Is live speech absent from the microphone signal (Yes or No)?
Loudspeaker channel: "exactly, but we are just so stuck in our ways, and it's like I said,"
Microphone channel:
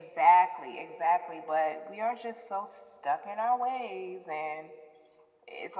Yes